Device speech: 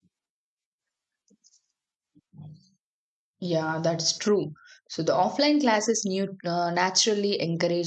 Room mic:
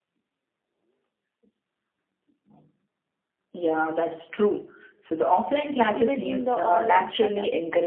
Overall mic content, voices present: both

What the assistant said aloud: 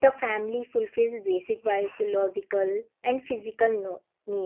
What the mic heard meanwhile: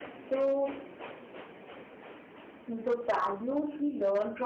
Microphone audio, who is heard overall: user only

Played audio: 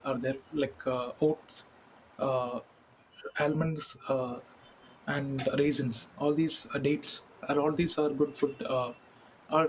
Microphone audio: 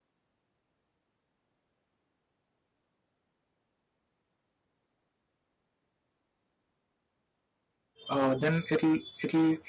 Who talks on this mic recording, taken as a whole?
user only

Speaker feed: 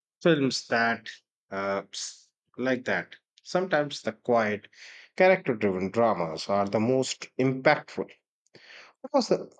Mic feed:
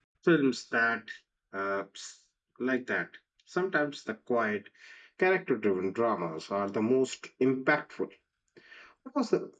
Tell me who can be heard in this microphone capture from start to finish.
echo only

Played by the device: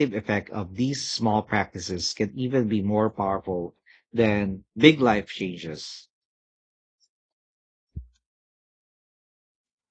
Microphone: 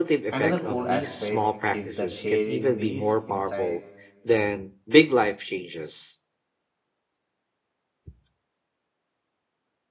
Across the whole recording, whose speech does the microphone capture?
both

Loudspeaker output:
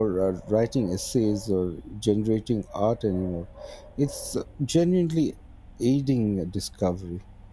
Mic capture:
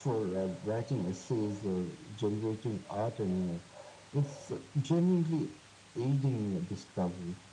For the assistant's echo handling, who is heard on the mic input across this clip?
echo only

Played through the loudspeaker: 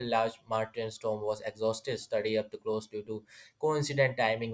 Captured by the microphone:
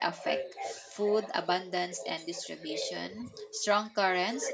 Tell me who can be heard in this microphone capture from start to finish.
both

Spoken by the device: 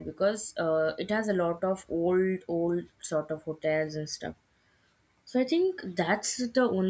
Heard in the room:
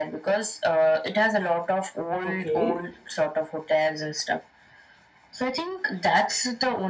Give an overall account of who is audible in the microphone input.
both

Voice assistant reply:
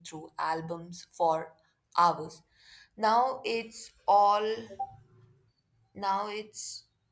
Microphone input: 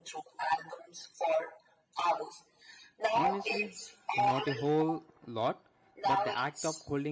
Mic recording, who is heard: both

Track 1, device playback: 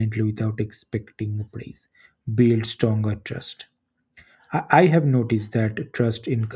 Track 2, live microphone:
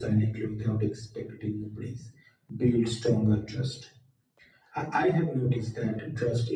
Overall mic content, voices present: echo only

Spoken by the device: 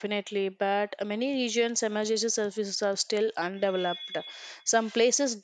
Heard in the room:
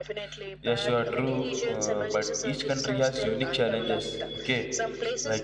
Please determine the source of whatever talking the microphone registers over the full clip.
both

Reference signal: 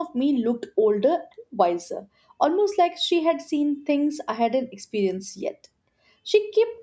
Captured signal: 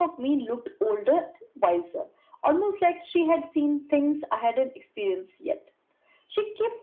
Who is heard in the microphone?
echo only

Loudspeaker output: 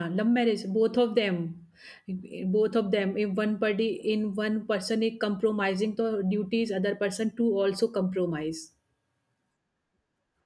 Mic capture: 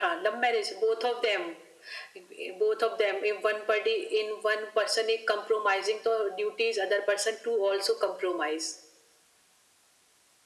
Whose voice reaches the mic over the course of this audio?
echo only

